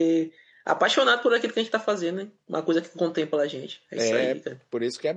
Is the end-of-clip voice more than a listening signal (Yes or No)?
Yes